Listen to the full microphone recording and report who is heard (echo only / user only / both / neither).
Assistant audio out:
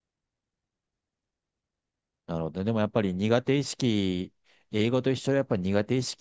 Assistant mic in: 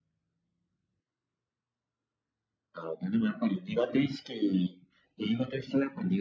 echo only